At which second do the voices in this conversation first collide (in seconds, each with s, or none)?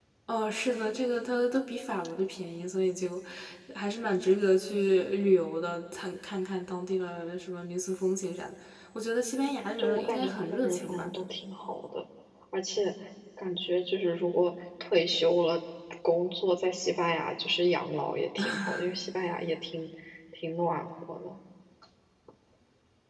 9.8 s